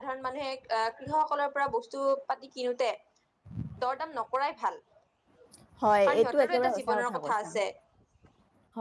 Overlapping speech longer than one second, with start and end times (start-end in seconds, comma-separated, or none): 6.0-7.5